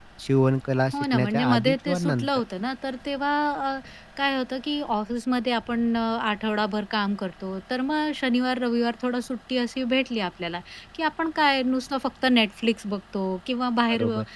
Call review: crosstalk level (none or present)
present